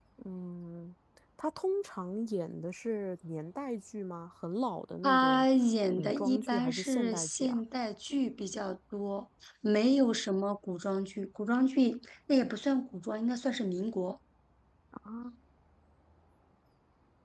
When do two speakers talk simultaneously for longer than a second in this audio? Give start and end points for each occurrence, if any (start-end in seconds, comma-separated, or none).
5.9-7.6